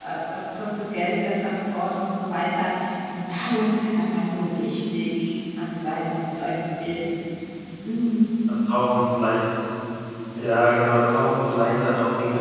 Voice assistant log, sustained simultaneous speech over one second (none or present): none